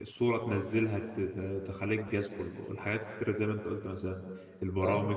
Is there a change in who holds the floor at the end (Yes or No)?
No